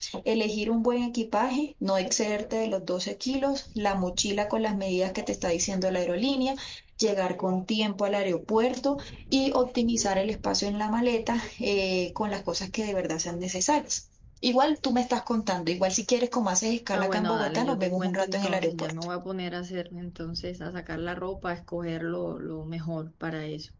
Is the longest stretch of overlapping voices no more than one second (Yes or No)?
No